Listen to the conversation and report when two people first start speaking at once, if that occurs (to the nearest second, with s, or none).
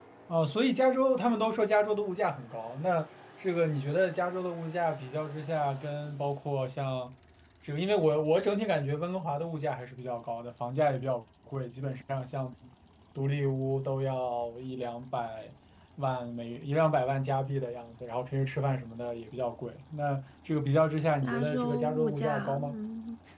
21 s